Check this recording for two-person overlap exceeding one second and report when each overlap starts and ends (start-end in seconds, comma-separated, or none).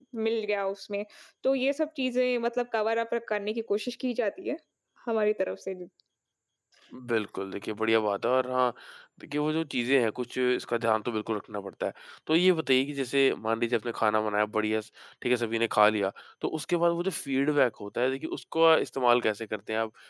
none